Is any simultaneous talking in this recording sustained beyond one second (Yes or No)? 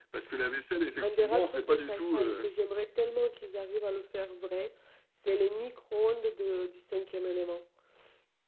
Yes